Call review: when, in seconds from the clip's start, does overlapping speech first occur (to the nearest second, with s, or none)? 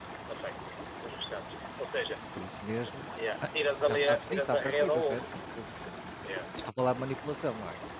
4 s